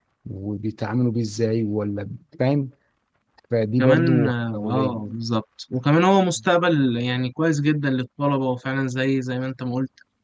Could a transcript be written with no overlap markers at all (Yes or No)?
No